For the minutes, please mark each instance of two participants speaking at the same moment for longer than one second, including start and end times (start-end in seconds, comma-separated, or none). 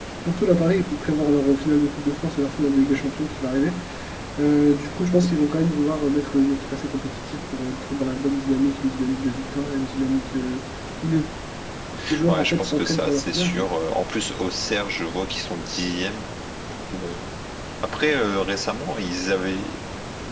12.3-13.6